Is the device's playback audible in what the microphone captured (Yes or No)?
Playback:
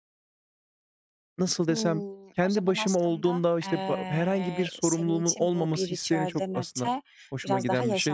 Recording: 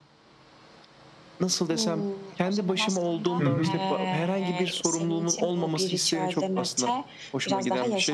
Yes